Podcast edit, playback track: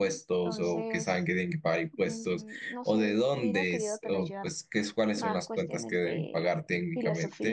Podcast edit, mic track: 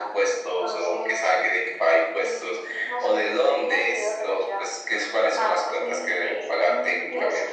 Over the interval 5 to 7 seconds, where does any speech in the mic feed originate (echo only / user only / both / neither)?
both